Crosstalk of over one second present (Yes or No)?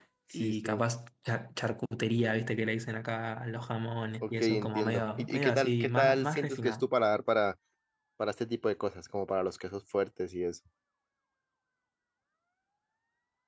Yes